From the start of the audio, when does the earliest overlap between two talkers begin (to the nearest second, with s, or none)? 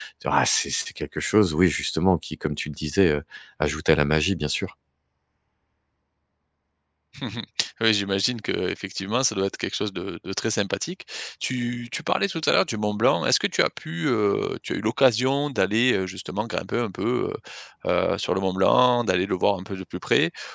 none